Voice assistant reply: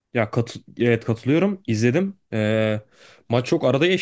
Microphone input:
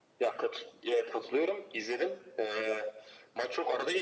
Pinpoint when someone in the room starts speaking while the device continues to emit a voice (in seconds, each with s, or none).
none